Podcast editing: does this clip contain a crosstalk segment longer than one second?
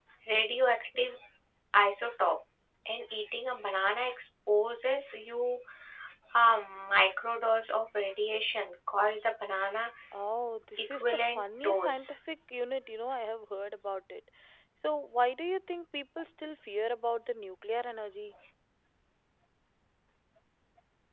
Yes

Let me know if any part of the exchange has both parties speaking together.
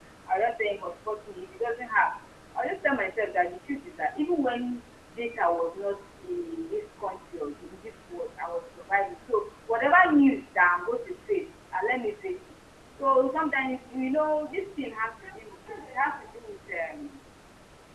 No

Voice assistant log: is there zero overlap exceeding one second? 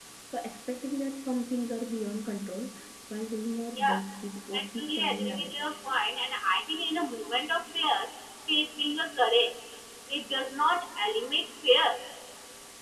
No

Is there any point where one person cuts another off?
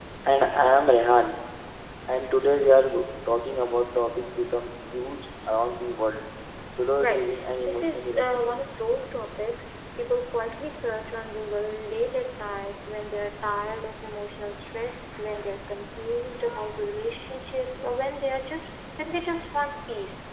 Yes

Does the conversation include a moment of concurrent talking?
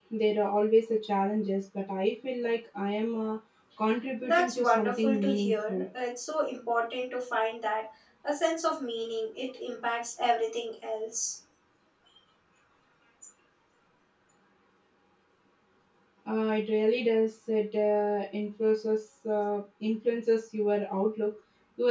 Yes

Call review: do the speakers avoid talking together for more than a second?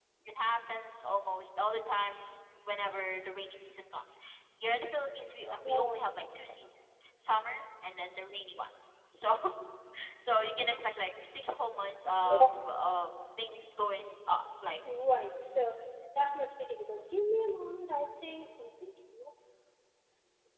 Yes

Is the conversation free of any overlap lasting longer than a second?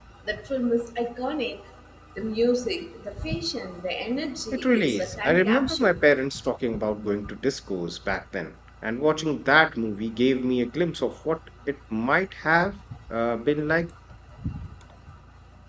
No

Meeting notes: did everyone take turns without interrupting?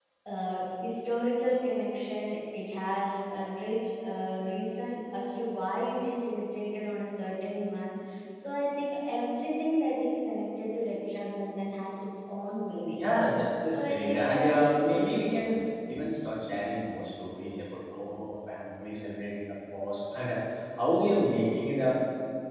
No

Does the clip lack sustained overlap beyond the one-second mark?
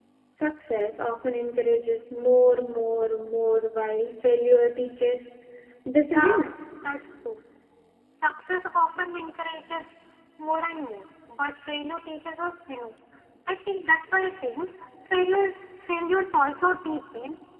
Yes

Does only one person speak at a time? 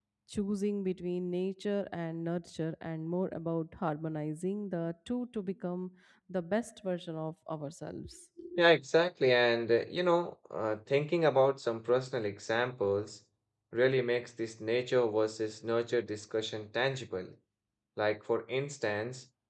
Yes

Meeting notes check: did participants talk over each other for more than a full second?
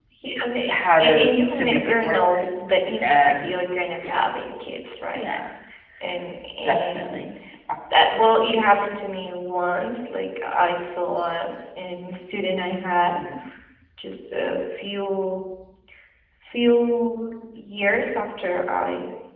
Yes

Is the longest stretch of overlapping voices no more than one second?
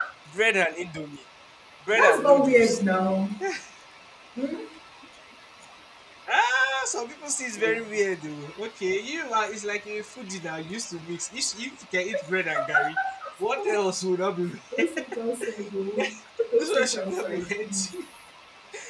No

